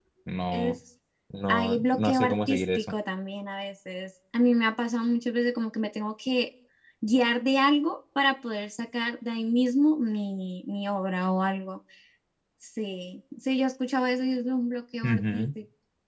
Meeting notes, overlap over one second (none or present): present